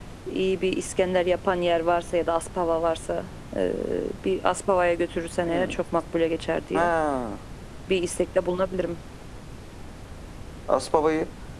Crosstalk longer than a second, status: none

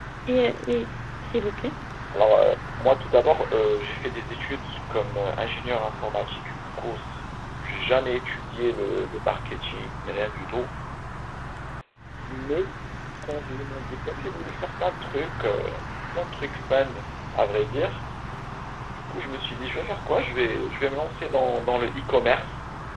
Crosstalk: none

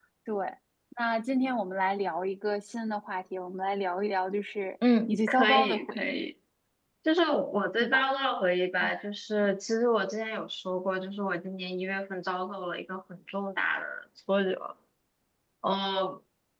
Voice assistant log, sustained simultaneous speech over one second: present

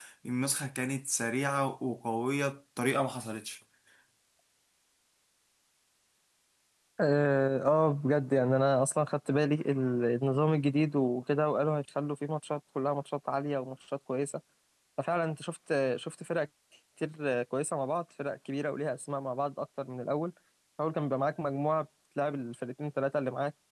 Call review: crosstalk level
none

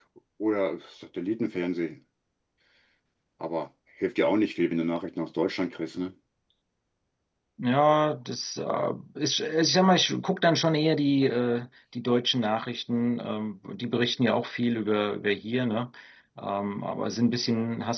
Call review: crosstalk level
none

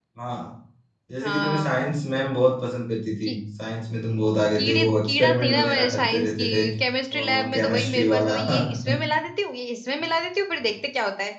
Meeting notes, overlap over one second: present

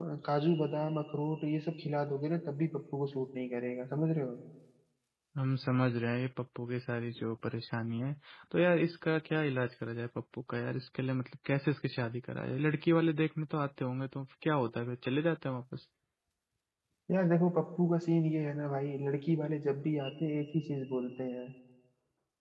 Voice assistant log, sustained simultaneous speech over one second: none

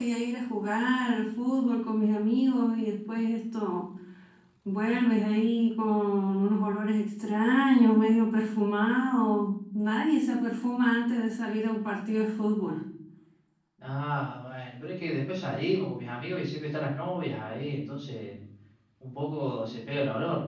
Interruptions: none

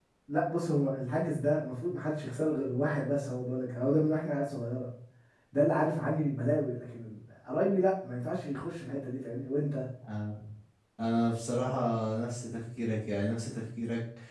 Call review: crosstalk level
none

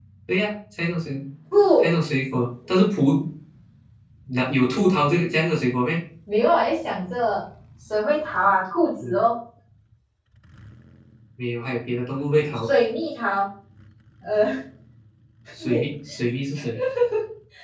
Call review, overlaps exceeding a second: none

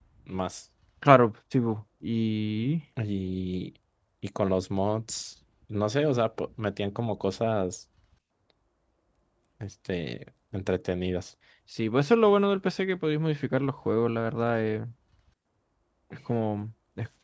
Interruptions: none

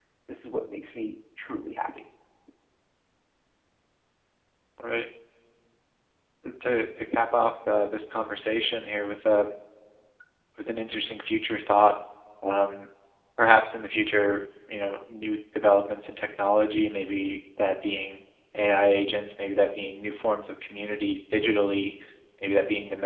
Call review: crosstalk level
none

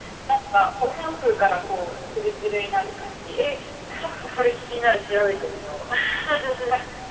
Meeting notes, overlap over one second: none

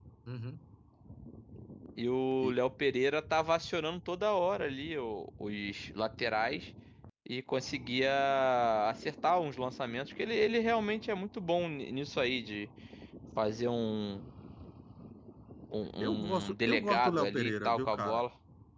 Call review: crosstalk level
present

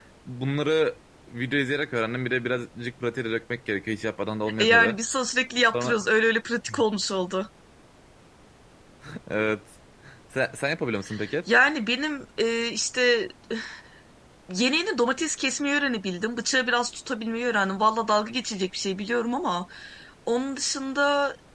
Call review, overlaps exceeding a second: none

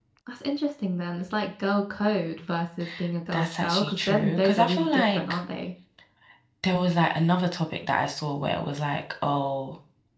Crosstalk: present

